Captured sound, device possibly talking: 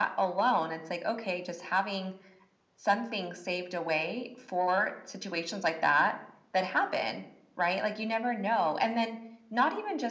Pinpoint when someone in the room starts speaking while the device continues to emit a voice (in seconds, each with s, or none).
none